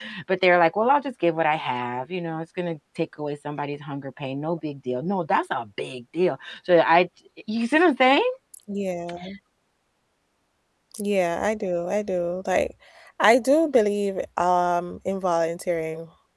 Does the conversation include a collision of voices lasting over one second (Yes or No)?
No